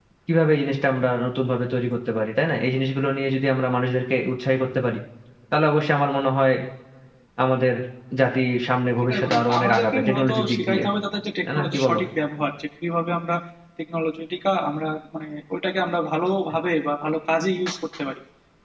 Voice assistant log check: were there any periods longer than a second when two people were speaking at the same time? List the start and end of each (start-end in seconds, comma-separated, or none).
9.0-10.8